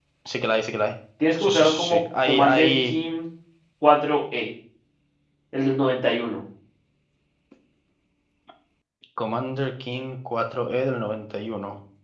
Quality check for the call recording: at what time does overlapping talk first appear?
1 s

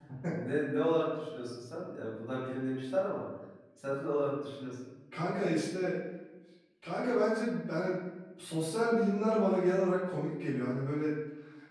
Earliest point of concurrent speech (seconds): none

